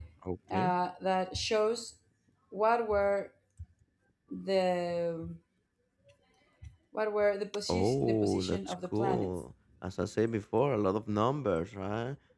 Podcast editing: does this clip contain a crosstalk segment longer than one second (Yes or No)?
Yes